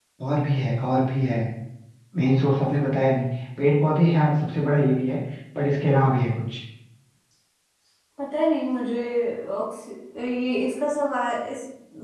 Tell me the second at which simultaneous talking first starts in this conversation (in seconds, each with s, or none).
none